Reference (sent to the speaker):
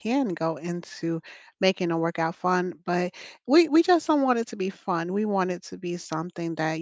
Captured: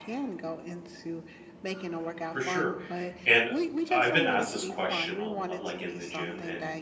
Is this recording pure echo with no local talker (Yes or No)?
No